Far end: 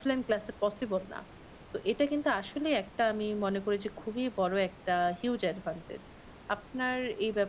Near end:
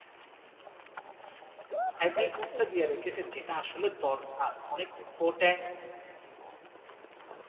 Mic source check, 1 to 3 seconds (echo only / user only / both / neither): user only